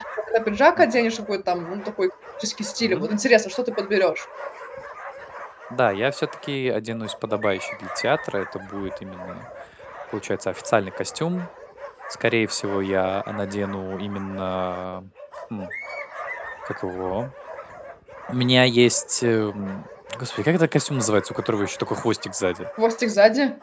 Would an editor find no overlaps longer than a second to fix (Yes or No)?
Yes